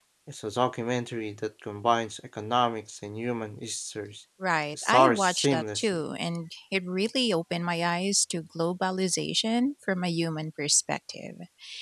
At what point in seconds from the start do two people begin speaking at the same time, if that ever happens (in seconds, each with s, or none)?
4.7 s